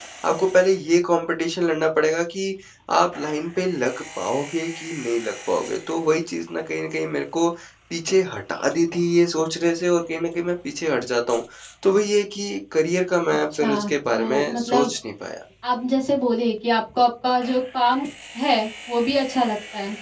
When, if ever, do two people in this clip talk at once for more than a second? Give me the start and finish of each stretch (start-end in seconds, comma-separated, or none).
13.3-14.9